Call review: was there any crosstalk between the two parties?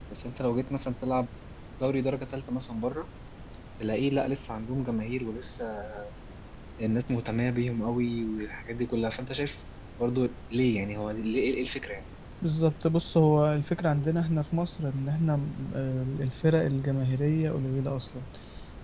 No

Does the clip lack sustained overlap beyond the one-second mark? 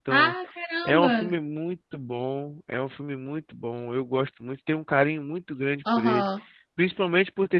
Yes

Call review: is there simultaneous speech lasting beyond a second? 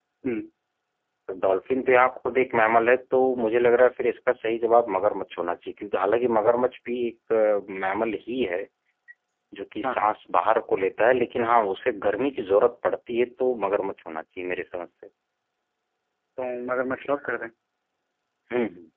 No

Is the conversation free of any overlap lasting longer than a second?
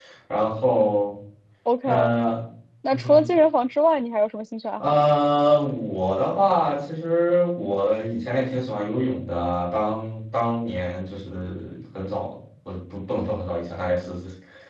Yes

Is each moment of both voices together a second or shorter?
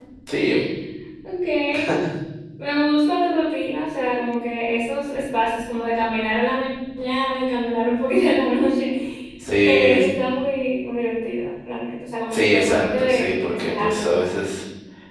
No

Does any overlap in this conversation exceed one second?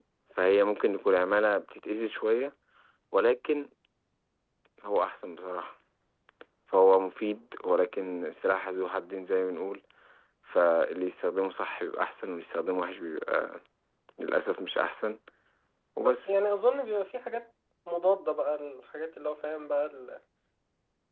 No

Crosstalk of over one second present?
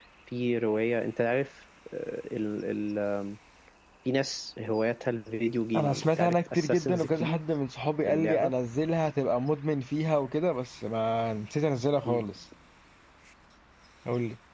Yes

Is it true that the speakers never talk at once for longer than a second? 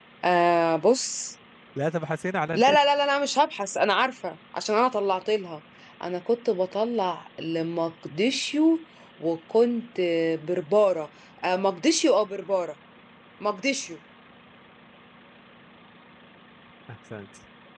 Yes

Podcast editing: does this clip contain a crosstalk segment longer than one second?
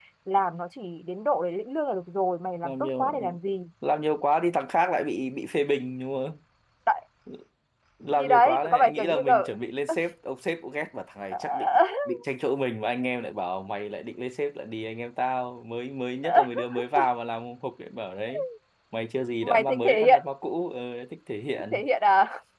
Yes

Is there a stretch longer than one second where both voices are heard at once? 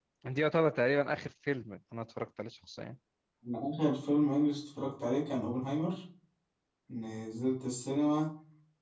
No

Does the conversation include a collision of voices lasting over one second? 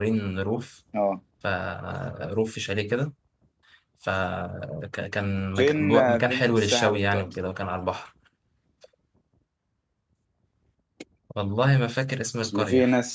Yes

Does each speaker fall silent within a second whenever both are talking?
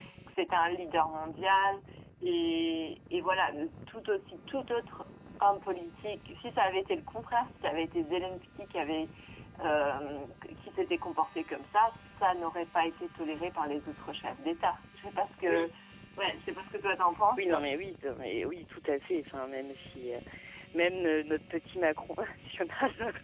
Yes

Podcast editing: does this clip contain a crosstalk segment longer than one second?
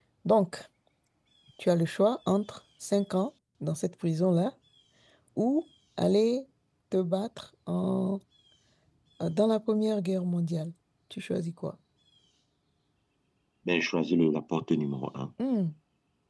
No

